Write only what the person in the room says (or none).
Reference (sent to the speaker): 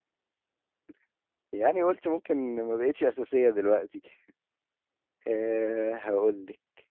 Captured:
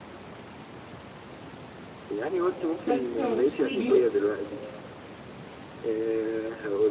مش شرط تبقى موجود في كل البيوت